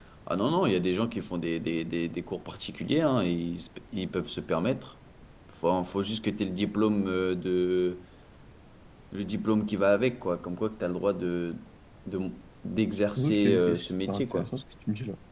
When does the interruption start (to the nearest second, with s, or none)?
13 s